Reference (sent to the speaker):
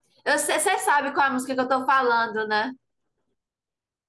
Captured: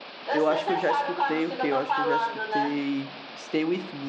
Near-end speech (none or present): present